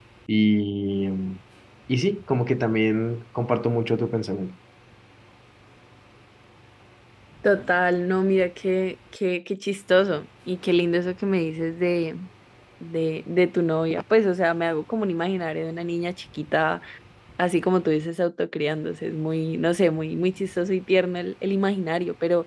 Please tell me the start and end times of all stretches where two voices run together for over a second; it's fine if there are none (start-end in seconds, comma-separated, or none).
none